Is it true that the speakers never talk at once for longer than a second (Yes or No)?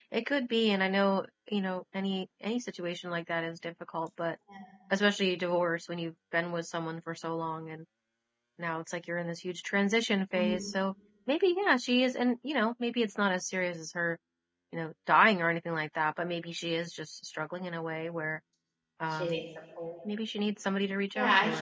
Yes